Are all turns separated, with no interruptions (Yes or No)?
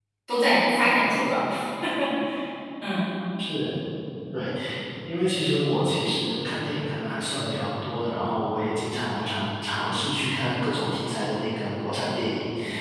Yes